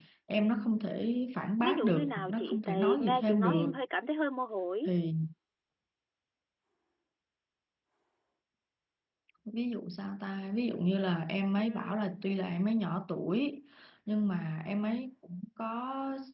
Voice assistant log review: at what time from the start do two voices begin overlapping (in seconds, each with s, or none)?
1.6 s